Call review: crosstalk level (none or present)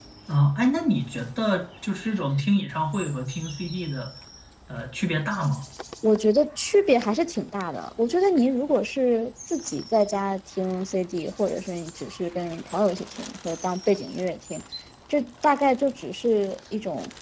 none